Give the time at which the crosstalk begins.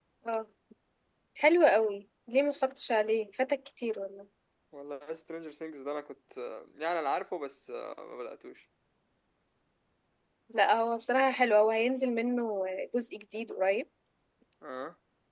none

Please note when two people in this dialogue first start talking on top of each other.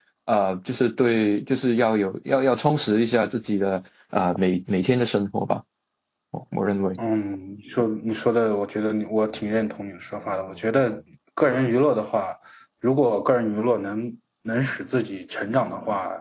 none

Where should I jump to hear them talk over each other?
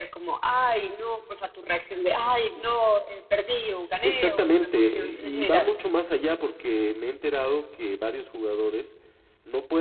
4 s

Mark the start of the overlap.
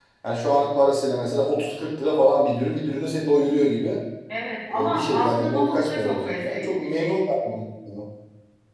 5 s

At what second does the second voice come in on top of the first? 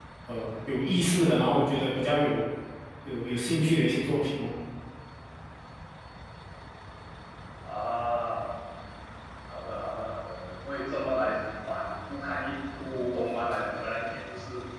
none

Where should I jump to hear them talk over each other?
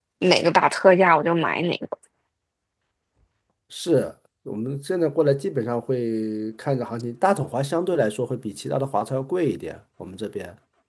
none

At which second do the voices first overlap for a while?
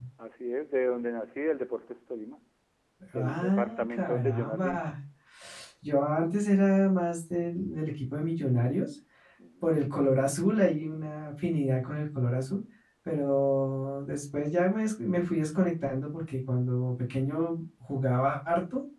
3 s

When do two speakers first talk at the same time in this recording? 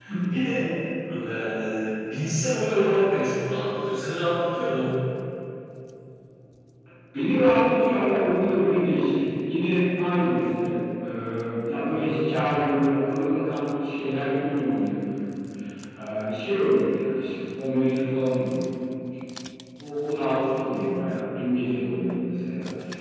none

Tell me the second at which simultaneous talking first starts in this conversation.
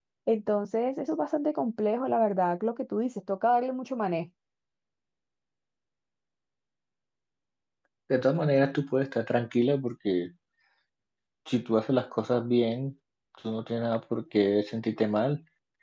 none

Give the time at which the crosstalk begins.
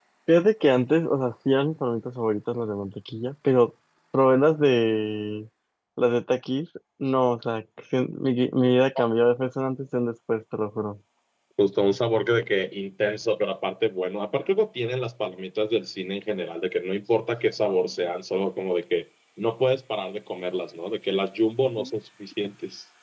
none

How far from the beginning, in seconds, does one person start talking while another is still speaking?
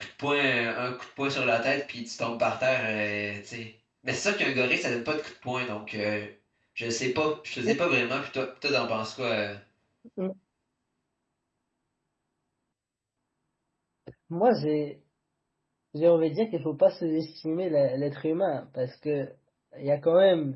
none

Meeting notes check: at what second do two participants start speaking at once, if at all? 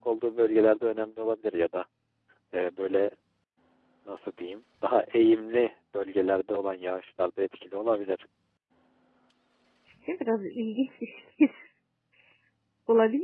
none

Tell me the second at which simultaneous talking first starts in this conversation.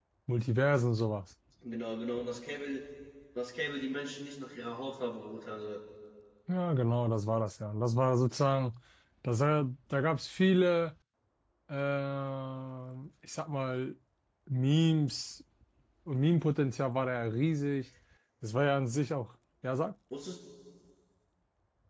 none

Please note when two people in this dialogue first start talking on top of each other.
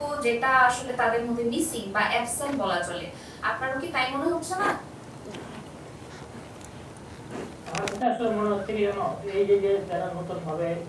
none

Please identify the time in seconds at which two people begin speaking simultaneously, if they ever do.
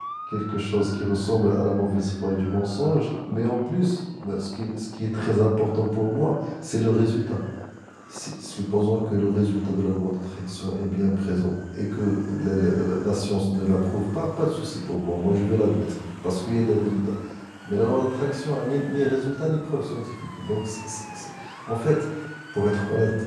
none

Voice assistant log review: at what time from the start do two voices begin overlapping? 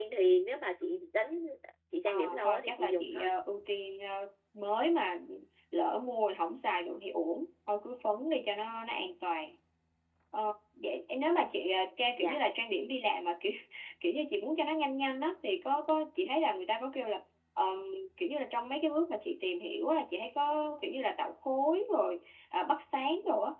2 s

